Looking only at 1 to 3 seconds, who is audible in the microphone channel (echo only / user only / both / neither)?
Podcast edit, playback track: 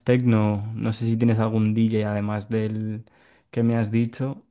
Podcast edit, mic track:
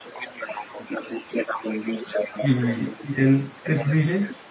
both